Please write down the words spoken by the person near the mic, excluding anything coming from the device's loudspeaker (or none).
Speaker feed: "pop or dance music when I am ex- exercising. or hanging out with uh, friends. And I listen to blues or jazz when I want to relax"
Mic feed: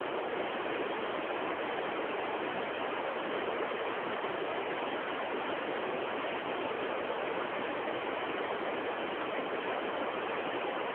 none